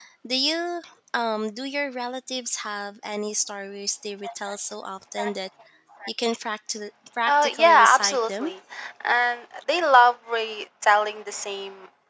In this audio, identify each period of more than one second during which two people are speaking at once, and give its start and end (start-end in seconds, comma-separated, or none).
7.3-8.5